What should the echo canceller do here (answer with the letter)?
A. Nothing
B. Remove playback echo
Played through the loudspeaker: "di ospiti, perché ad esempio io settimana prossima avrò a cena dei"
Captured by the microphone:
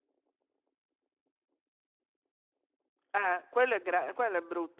A